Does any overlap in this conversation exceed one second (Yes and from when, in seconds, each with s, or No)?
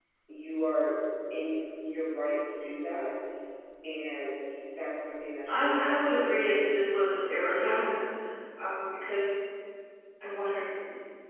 Yes, from 5.5 s